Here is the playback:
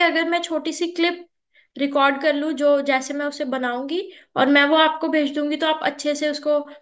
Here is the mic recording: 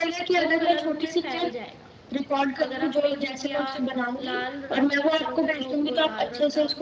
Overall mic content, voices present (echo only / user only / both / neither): both